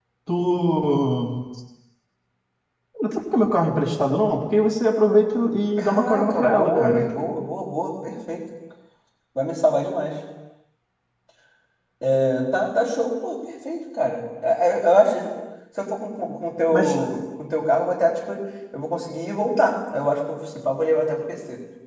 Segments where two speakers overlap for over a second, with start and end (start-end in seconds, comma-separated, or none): 5.8-7.0